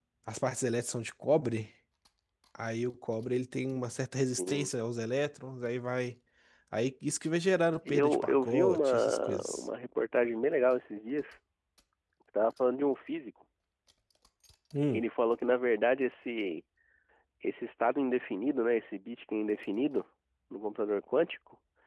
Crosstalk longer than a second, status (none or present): present